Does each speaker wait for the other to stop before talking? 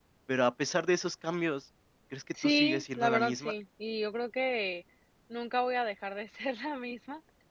No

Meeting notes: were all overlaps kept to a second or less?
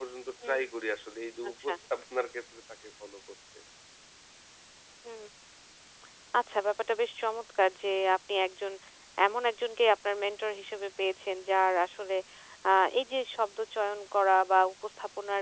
Yes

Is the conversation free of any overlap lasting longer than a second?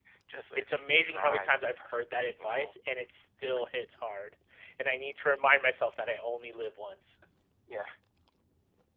No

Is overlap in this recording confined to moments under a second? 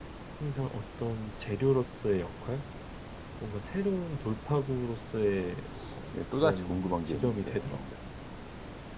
No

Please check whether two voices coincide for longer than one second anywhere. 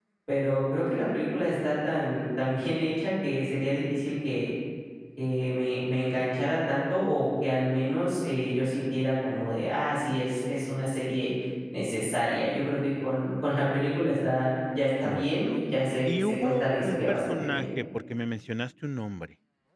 Yes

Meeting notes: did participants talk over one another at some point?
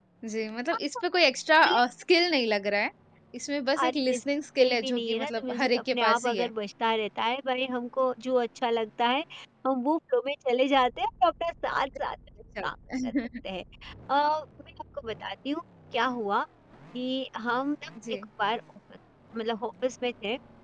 Yes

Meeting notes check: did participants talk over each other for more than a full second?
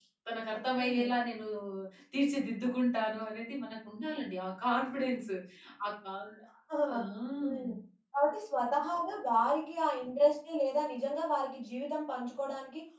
No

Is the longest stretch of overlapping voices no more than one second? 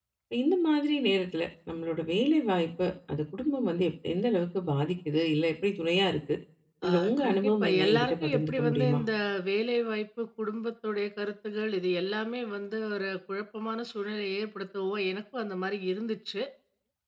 No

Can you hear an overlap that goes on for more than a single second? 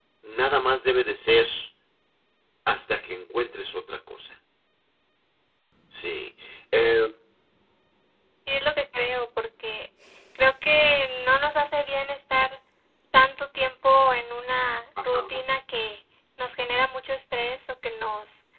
No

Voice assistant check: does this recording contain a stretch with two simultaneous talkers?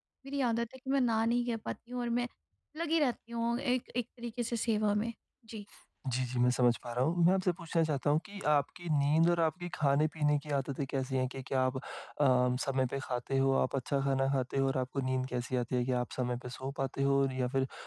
No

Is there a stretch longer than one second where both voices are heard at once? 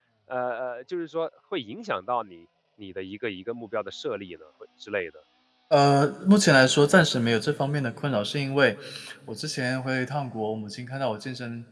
No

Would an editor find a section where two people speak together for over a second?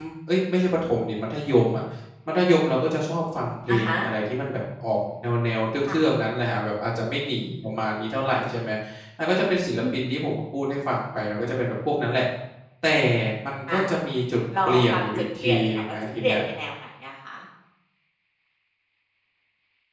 Yes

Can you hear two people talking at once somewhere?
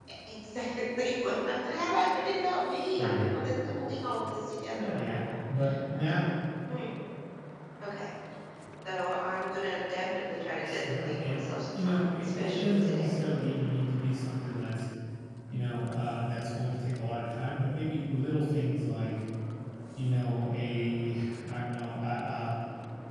Yes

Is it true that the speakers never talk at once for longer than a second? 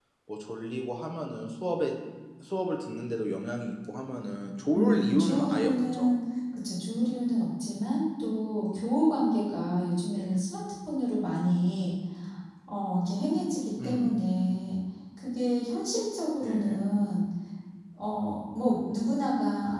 No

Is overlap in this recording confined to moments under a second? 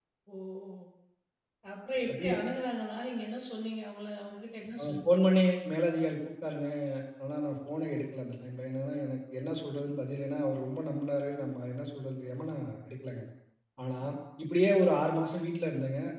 Yes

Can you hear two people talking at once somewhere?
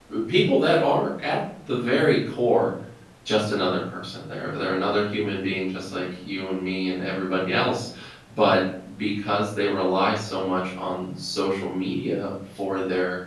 No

